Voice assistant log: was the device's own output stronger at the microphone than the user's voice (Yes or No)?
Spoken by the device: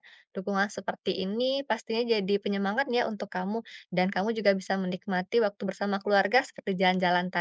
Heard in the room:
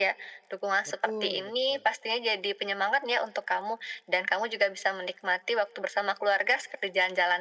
Yes